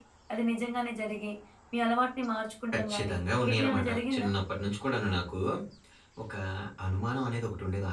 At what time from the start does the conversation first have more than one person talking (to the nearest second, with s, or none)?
3 s